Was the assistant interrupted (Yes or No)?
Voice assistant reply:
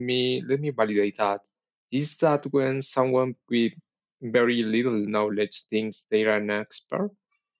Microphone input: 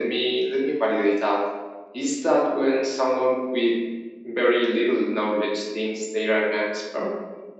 No